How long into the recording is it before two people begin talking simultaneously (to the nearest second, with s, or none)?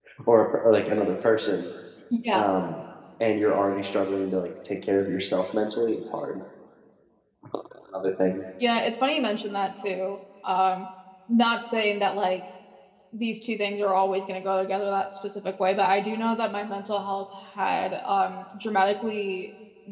none